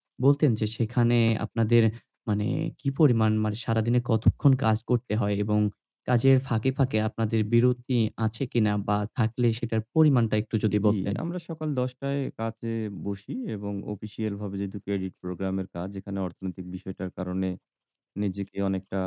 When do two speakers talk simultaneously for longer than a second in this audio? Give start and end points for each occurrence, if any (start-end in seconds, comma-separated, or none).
none